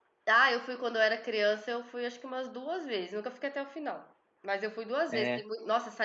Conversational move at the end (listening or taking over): listening